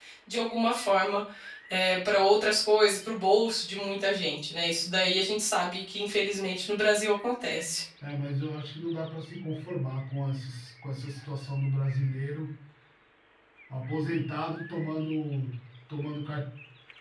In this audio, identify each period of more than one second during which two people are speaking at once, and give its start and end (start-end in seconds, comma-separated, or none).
none